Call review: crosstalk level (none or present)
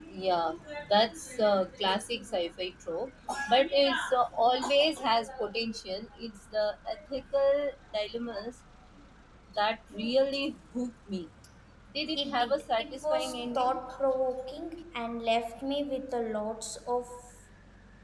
present